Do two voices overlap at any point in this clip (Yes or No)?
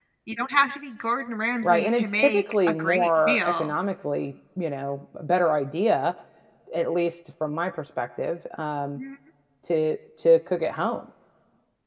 Yes